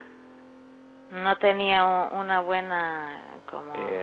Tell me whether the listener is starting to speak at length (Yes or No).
Yes